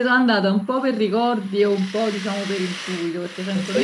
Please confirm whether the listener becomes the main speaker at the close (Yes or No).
Yes